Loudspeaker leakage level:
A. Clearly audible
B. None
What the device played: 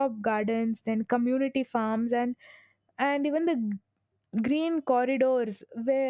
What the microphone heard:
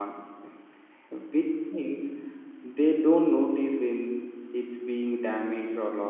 B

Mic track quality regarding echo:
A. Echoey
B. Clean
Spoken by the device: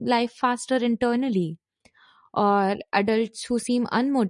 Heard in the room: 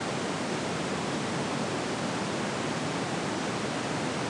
B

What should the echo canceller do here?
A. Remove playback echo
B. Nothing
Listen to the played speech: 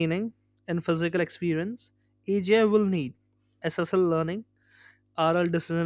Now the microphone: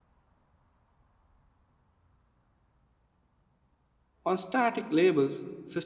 B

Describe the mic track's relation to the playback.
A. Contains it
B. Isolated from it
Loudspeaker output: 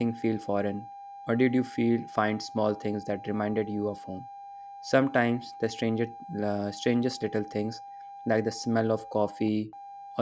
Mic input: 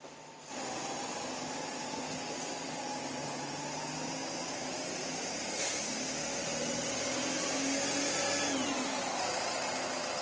B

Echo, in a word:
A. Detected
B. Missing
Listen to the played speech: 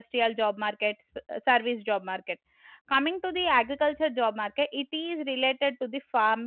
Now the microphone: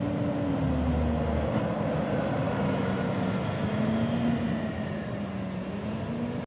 B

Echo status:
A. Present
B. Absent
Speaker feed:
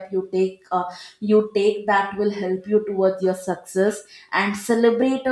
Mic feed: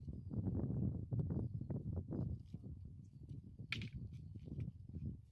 B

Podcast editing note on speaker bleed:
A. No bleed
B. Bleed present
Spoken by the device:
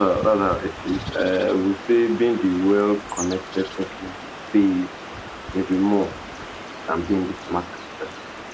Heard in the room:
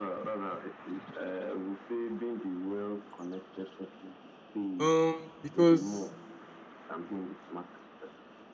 B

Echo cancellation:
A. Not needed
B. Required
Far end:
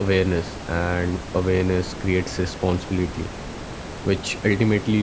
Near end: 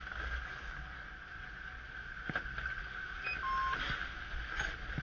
A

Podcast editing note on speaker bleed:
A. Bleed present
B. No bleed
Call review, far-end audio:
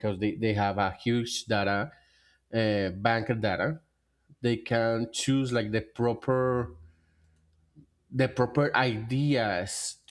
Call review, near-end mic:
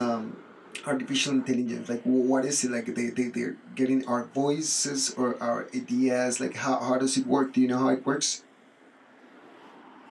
B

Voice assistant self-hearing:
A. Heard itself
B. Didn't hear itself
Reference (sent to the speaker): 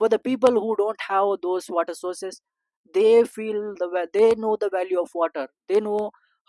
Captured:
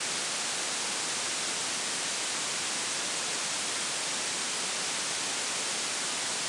B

